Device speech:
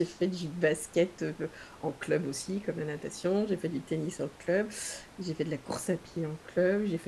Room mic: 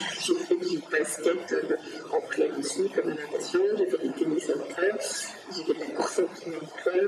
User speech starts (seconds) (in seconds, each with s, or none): none